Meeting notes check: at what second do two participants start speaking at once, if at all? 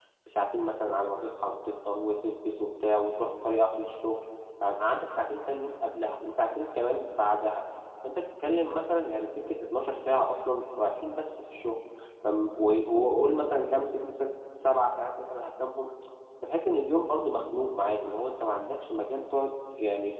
none

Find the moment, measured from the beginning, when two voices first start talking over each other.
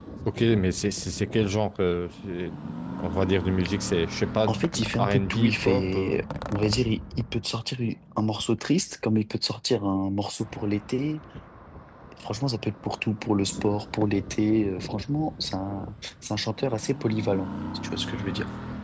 5.0 s

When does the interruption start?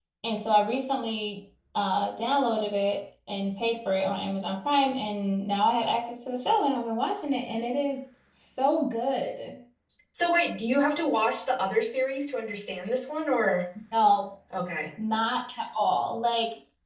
none

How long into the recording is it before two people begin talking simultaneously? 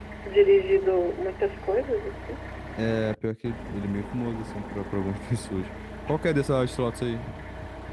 none

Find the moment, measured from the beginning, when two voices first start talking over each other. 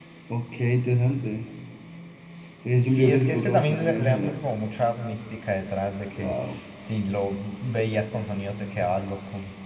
2.9 s

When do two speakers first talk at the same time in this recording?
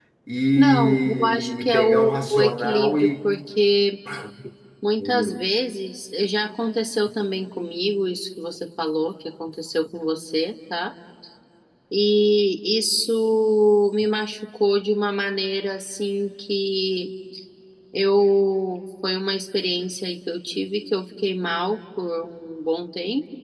0.6 s

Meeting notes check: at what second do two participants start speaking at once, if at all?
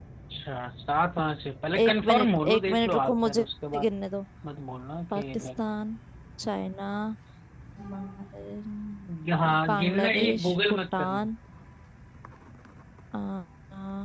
1.8 s

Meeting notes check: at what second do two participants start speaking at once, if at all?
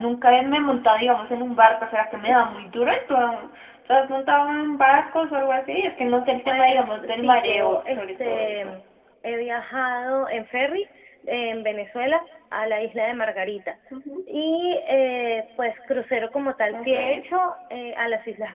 6.4 s

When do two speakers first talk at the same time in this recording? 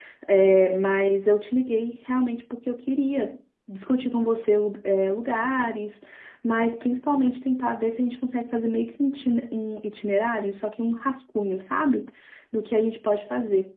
none

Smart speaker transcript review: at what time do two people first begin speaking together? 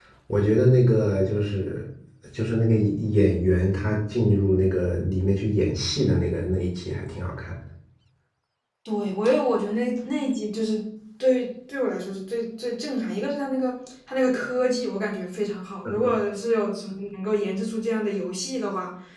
none

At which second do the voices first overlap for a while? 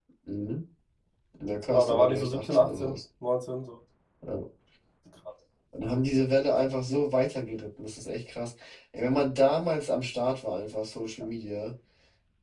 1.7 s

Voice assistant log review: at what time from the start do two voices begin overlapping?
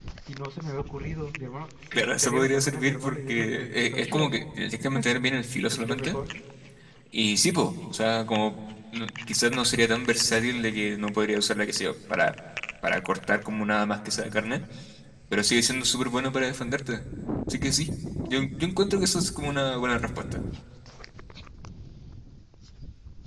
1.9 s

